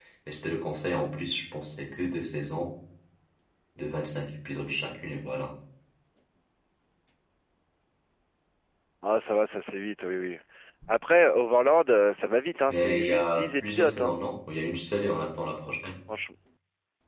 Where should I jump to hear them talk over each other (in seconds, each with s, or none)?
12.7 s